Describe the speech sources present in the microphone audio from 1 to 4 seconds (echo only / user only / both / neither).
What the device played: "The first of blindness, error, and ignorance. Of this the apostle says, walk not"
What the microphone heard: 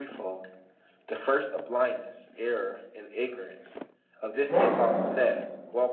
echo only